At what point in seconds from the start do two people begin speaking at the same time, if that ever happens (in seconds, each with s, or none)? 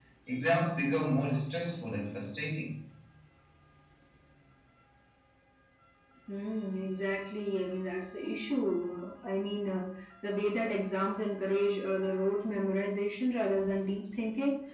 none